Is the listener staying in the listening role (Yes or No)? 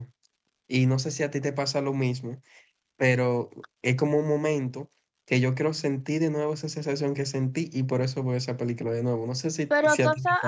No